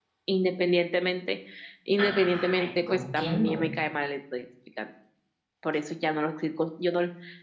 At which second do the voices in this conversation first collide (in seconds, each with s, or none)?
2.0 s